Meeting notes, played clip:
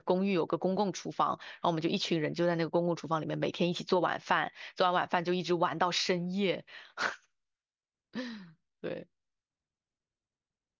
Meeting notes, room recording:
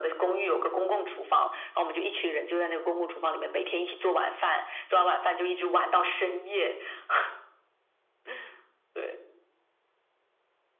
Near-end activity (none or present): none